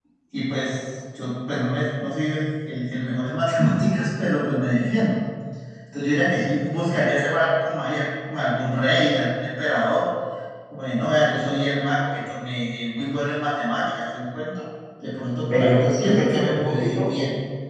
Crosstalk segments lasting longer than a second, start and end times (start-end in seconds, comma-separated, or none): 15.4-17.1